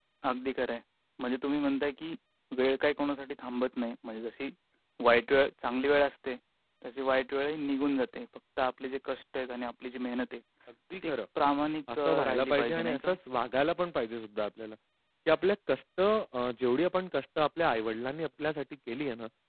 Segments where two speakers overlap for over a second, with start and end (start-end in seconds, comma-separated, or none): 11.9-13.2